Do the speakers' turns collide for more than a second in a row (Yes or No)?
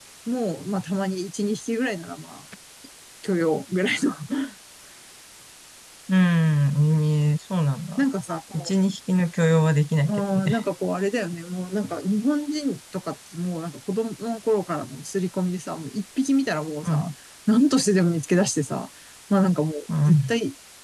No